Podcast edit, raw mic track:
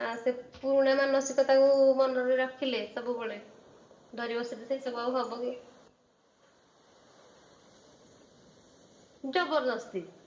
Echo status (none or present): none